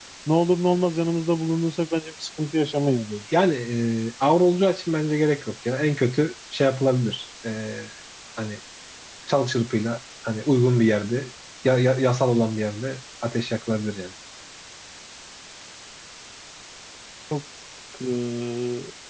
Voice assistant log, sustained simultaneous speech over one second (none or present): none